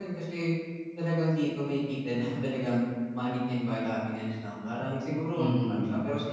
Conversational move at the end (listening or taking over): listening